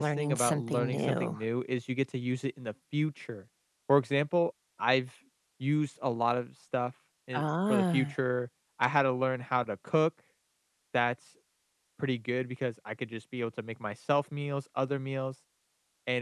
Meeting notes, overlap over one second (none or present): present